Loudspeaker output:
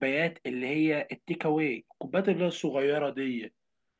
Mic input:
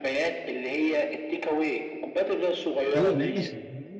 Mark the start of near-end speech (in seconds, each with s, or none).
2.9 s